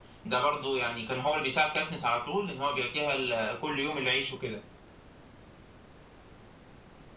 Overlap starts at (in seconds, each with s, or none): none